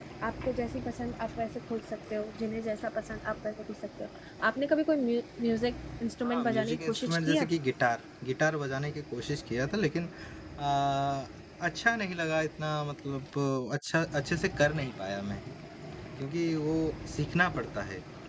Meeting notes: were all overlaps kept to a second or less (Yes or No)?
No